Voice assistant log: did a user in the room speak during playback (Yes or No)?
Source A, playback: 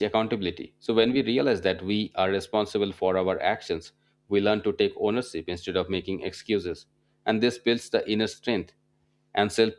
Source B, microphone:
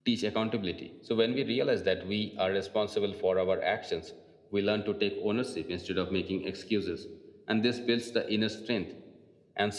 No